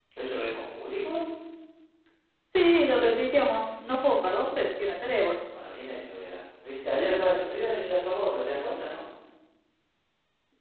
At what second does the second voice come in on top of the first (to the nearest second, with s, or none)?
none